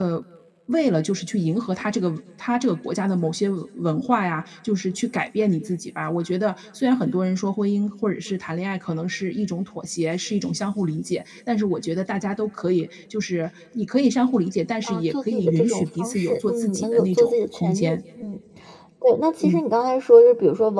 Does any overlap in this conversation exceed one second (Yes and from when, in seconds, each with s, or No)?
Yes, from 14.8 s